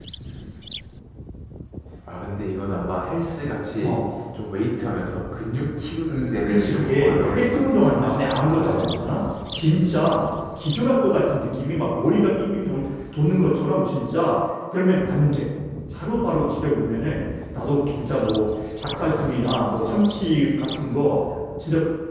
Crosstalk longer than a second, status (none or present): present